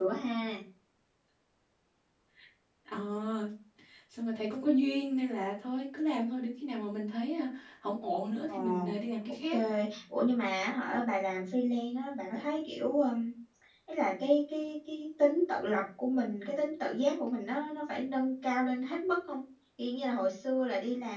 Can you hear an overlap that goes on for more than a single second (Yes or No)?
No